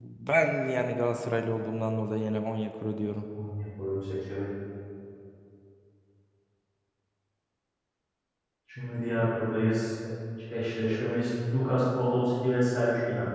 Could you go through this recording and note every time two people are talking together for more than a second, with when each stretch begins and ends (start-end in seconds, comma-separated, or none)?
none